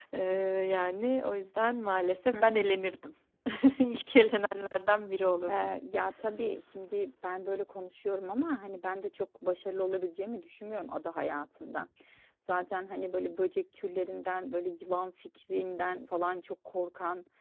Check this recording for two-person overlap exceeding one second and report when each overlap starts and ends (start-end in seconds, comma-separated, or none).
none